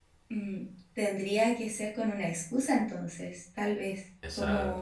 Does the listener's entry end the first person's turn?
Yes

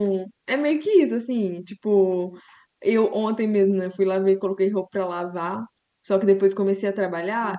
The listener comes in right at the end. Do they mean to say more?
No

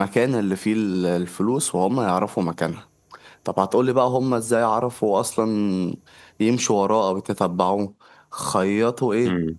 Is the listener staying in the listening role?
Yes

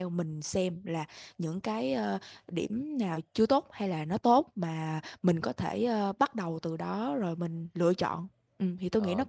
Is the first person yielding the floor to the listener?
Yes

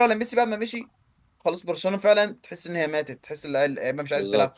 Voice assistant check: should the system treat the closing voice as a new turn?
Yes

